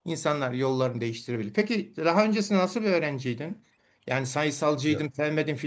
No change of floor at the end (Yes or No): Yes